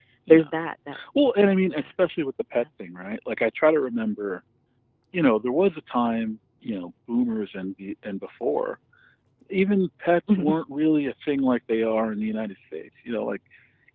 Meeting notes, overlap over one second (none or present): none